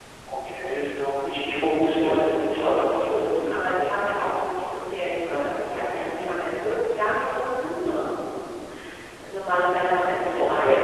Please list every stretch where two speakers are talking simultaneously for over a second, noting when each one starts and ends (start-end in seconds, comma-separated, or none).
1.8-3.6